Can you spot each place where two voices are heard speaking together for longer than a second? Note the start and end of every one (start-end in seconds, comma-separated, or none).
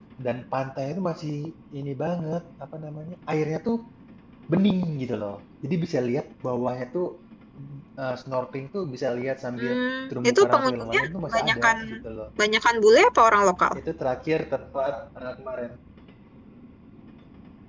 10.3-11.8